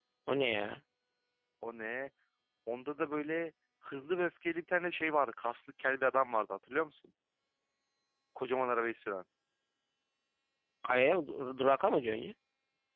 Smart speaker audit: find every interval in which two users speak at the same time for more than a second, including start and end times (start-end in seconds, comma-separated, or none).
none